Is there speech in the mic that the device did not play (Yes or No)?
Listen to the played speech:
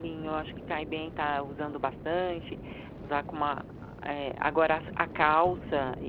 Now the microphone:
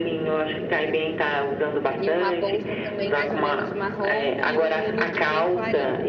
Yes